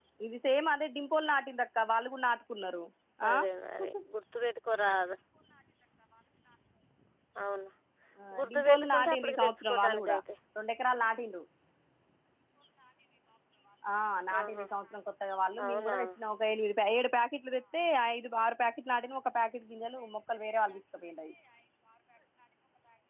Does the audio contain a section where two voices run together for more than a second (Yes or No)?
Yes